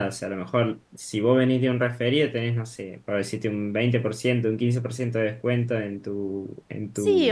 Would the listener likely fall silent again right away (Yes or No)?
No